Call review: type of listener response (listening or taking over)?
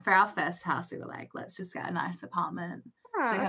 listening